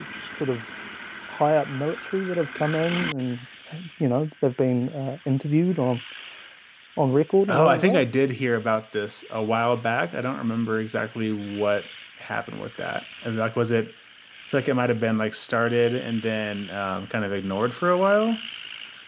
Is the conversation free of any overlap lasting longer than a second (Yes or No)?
Yes